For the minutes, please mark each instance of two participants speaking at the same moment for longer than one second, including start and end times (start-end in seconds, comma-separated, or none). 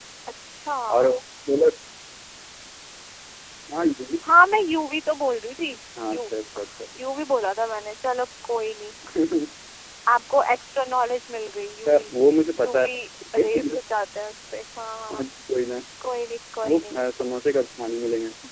none